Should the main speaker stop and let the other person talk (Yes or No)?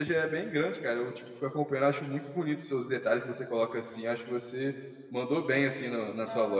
Yes